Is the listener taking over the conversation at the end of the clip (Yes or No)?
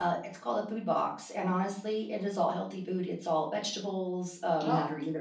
No